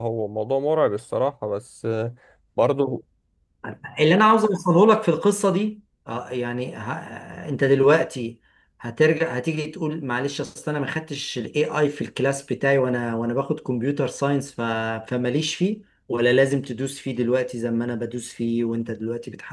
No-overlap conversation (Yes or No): Yes